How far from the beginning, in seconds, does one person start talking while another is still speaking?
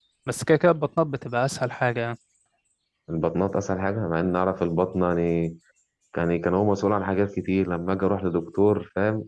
none

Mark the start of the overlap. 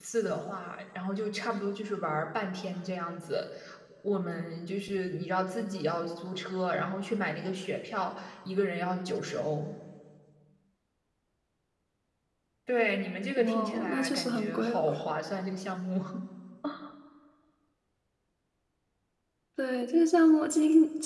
13.3 s

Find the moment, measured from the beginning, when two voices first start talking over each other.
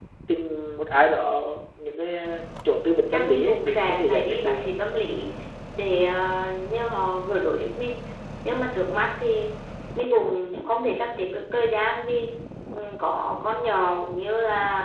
3.1 s

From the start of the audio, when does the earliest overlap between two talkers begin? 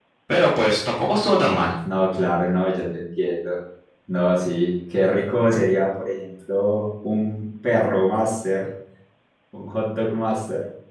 none

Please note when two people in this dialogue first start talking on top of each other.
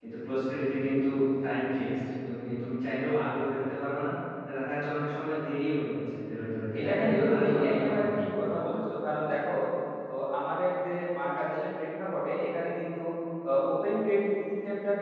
6.7 s

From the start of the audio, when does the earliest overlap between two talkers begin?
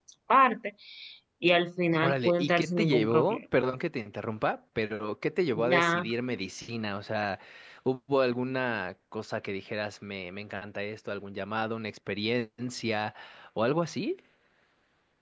2.0 s

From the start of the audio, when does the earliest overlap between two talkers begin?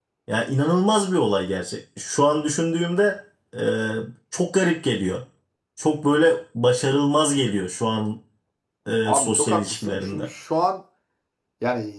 9.0 s

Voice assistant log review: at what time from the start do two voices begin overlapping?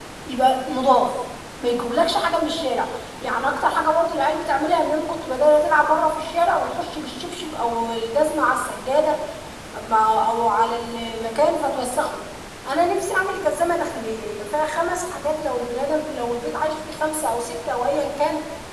none

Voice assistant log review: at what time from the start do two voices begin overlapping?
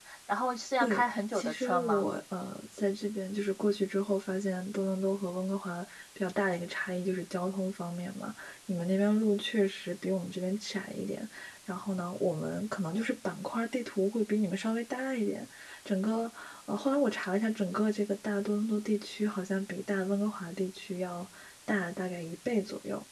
0.8 s

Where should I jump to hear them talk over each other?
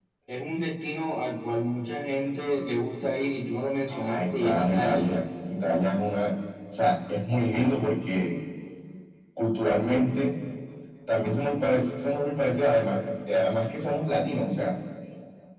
3.9 s

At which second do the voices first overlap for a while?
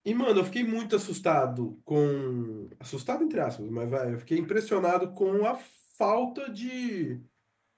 none

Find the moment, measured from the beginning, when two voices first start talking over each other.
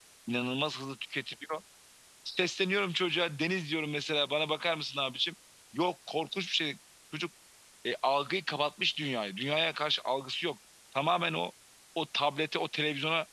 none

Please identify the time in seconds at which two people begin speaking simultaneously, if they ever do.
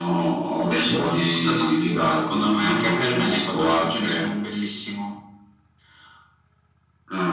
0.6 s

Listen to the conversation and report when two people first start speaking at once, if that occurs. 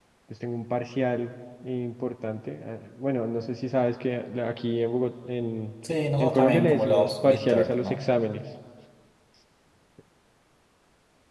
6.2 s

